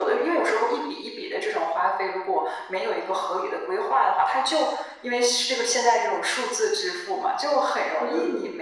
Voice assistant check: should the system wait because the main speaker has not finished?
Yes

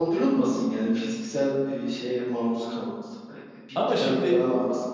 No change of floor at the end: Yes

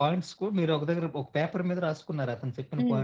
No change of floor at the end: No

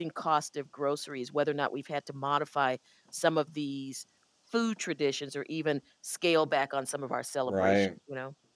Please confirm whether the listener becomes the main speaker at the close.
Yes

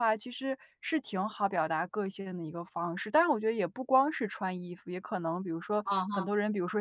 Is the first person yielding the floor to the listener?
No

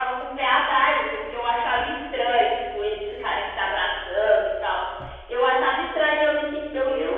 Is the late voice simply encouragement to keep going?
Yes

